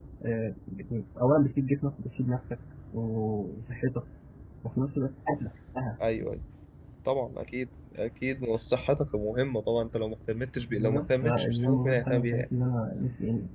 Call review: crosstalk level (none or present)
present